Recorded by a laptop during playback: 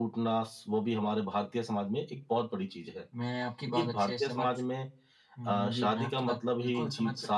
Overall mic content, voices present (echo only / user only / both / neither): echo only